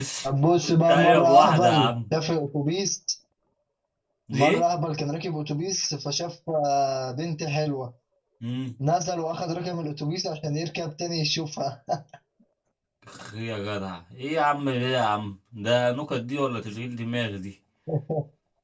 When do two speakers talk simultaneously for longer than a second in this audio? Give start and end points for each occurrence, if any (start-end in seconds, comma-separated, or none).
0.6-1.9